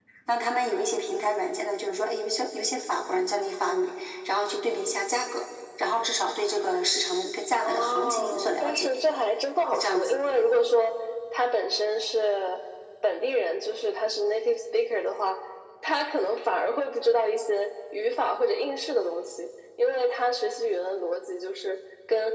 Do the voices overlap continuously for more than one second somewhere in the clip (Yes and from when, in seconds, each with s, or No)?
Yes, from 7.6 s